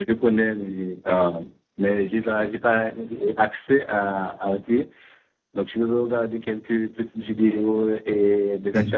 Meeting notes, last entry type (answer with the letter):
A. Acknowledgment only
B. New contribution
A